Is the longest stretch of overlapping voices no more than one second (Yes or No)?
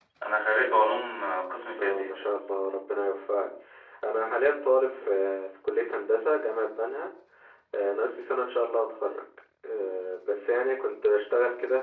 Yes